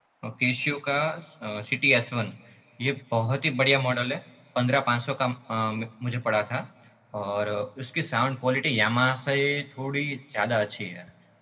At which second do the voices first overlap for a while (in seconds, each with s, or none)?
none